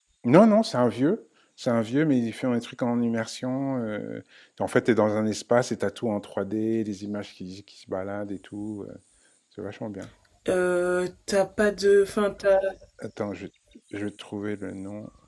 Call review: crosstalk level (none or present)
none